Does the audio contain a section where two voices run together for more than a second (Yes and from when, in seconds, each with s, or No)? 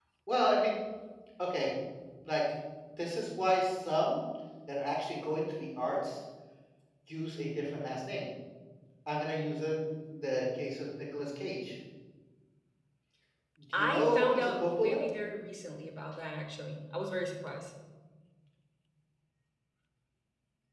Yes, from 13.7 s